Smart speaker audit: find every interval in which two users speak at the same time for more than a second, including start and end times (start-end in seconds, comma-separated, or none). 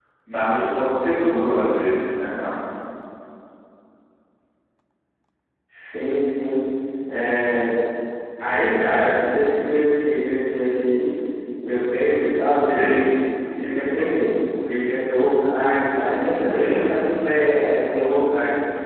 none